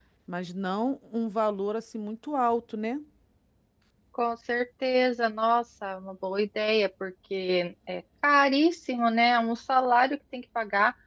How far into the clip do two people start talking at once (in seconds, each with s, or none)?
none